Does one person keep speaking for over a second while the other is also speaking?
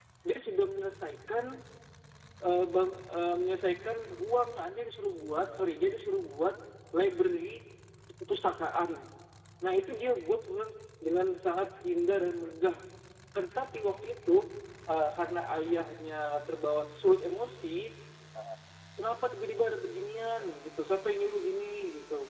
No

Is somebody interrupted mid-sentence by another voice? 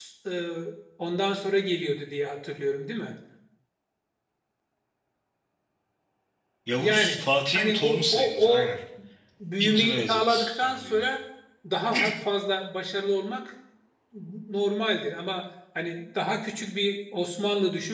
Yes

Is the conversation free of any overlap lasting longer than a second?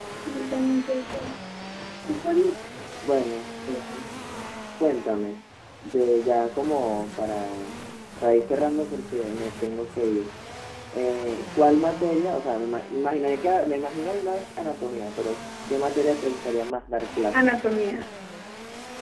Yes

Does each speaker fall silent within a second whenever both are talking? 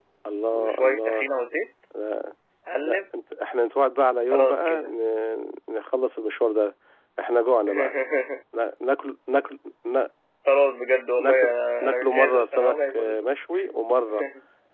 No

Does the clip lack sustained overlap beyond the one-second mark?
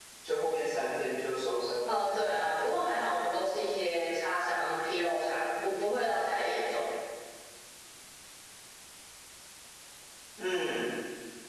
No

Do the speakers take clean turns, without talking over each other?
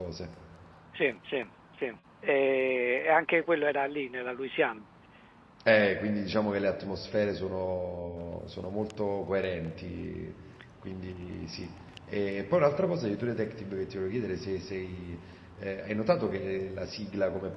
Yes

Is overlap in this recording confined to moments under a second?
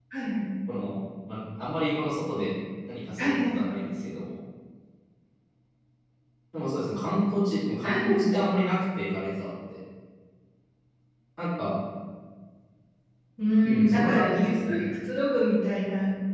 No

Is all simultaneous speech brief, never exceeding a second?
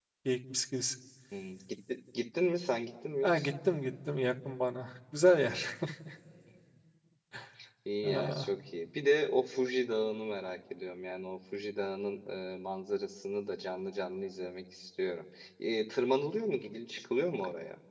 Yes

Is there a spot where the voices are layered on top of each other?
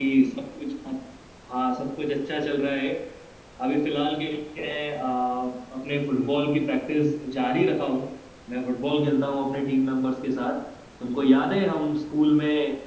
No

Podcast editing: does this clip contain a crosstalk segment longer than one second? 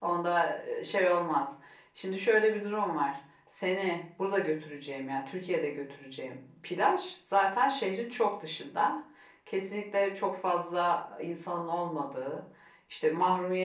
No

